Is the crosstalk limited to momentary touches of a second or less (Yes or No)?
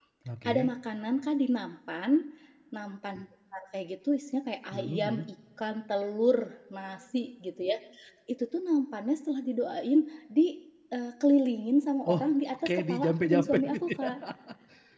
No